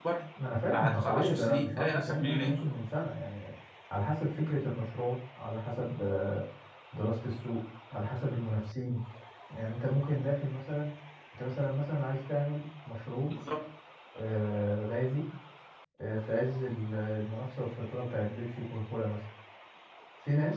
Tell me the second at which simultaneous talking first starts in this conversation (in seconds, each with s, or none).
0.7 s